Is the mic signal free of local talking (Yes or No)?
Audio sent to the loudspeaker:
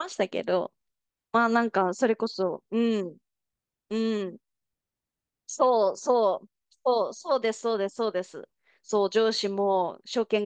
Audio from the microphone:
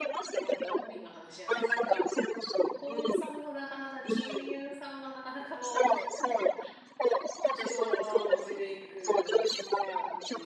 No